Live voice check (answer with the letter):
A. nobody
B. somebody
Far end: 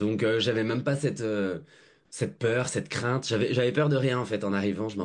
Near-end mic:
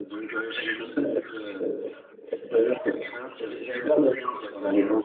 A